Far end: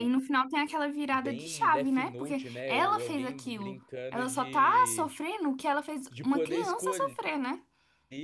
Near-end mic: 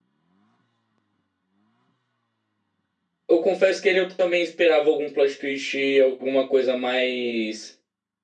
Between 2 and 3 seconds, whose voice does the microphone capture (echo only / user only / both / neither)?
neither